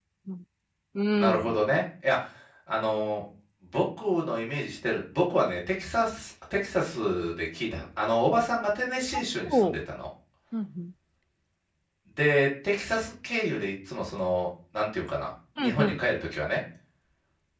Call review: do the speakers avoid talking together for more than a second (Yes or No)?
Yes